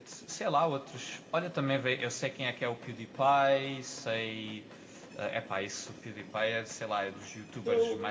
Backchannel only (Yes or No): Yes